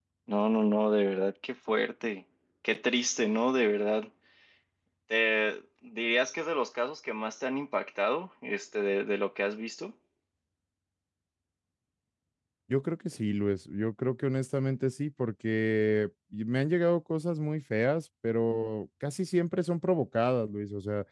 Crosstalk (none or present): none